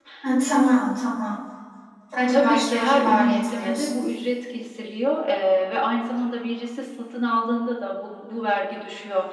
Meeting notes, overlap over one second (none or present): present